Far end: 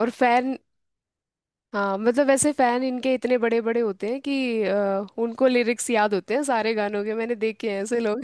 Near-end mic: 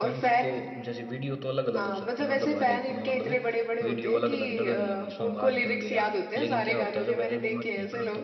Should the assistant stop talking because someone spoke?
Yes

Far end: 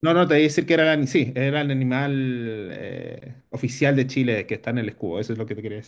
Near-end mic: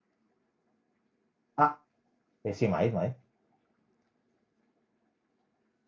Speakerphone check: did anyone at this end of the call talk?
Yes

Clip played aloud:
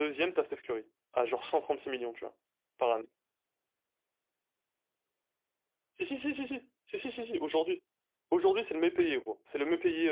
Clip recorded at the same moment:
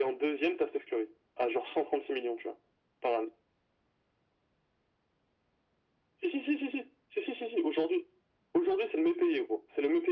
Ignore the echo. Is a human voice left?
No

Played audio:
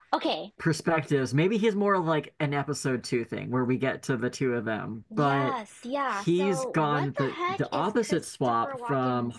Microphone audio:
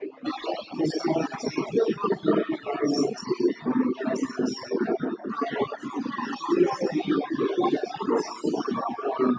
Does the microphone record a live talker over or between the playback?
No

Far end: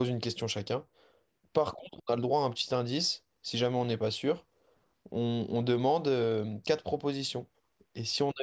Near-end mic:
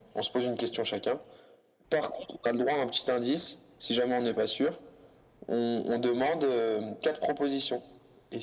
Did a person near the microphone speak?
No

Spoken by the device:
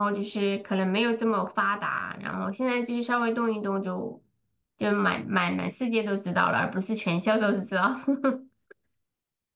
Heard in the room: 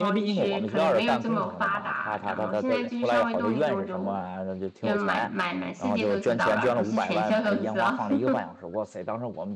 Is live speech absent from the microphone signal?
No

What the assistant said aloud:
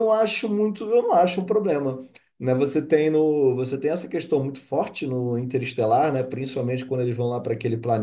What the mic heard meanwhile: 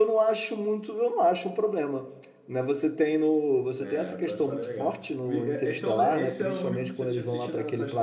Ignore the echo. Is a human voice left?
Yes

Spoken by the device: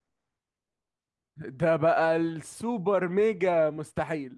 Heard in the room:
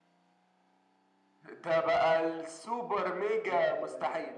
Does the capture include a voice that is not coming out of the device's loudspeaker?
Yes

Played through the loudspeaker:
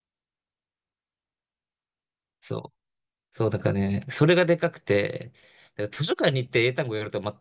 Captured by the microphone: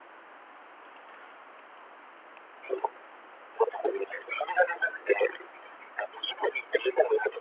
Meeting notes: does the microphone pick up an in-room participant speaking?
No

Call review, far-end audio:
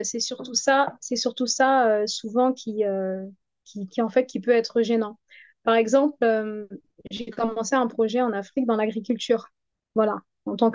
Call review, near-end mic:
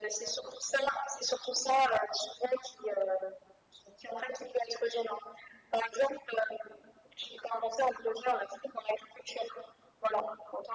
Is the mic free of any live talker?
Yes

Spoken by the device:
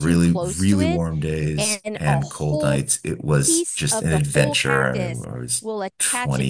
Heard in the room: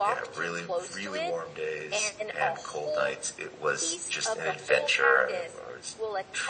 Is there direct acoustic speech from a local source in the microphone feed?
No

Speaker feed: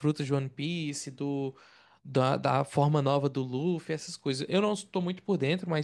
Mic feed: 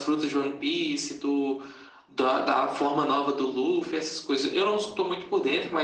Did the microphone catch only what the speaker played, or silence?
Yes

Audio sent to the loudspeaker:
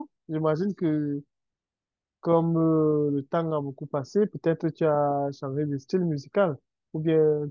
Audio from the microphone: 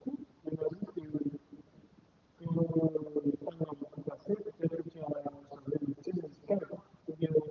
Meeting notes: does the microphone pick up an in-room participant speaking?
No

